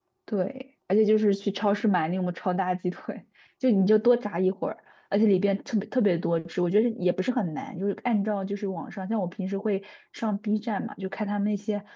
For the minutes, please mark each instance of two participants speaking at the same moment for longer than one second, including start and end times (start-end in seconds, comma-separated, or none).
none